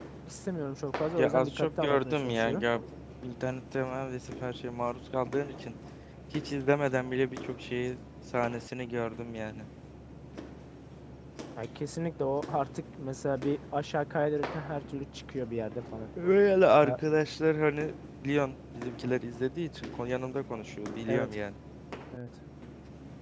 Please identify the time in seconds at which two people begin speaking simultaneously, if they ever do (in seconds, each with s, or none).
1.2 s